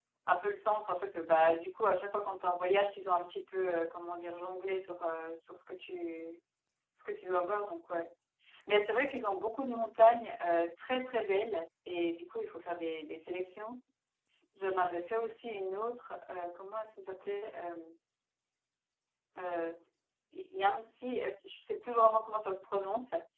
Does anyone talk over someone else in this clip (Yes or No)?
No